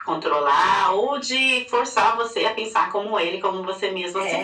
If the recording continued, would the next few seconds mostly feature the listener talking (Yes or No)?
Yes